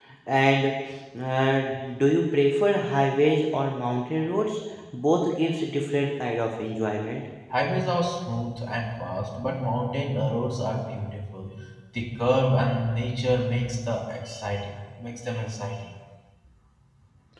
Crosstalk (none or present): none